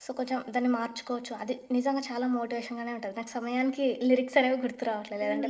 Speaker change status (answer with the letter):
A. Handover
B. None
A